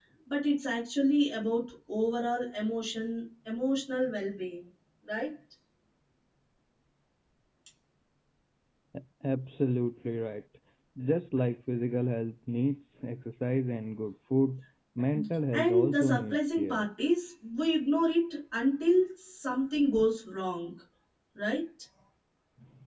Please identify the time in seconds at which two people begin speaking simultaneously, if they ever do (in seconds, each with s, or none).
15.5 s